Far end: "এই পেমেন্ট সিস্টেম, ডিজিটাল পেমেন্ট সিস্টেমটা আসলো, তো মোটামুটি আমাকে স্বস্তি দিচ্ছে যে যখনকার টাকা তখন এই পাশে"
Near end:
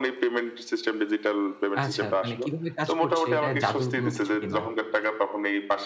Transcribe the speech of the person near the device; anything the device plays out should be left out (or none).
আচ্ছা, মানে কিভাবে কাজ করছে এটা জাদুর কোনো কিছু কিনা।